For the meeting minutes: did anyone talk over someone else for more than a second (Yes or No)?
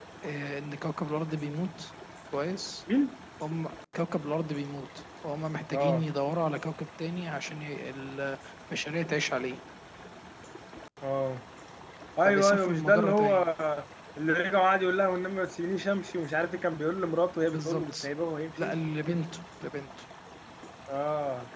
Yes